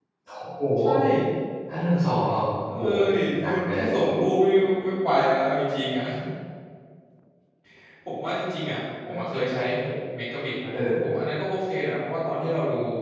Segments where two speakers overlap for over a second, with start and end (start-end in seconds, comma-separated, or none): none